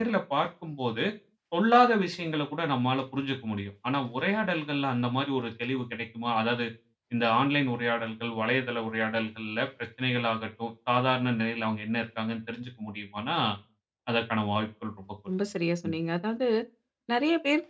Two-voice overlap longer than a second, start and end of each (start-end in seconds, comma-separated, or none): none